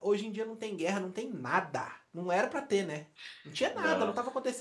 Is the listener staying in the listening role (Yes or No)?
Yes